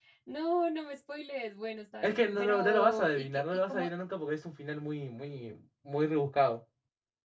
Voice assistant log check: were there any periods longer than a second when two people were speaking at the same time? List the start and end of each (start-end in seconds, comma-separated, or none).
2.0-3.9